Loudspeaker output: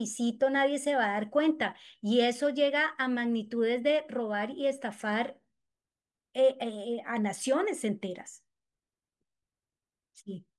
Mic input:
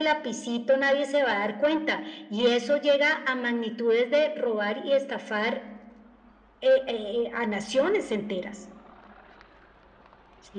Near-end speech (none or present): none